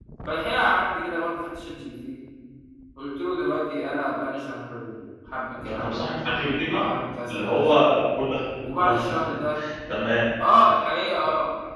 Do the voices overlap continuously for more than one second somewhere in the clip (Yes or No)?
Yes